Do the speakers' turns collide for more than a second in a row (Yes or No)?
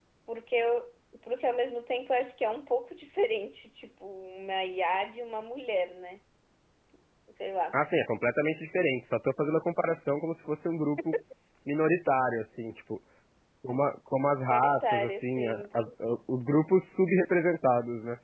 Yes